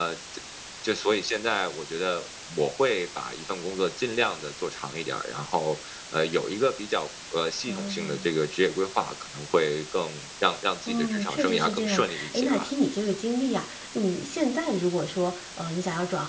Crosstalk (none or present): present